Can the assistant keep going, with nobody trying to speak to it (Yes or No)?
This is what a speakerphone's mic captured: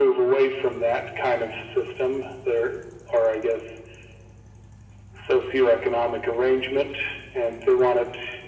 Yes